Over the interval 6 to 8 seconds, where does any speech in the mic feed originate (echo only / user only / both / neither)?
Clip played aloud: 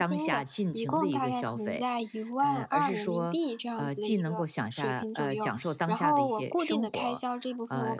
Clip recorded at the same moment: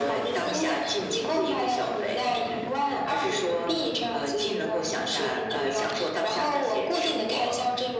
echo only